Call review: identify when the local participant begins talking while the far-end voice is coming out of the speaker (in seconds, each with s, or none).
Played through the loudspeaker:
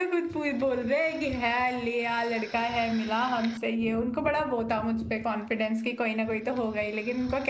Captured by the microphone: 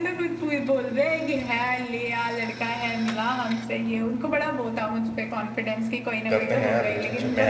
6.3 s